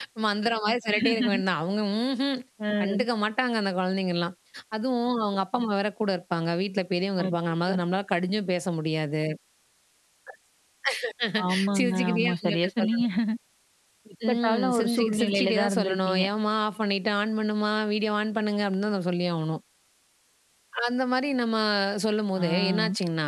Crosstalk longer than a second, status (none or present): present